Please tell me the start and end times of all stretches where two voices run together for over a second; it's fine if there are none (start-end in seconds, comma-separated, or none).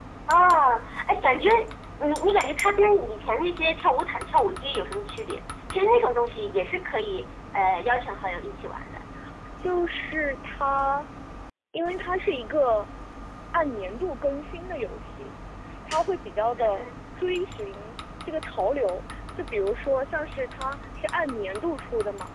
none